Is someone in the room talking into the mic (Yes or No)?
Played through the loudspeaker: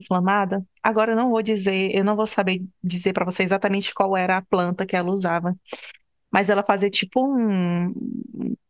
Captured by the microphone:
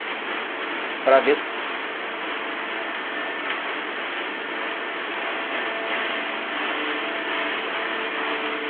Yes